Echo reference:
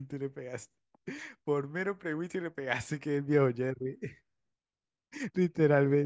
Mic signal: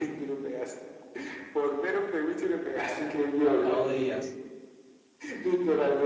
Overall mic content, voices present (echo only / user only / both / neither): both